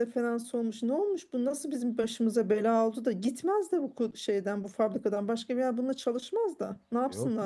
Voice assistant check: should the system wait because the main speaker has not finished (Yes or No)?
No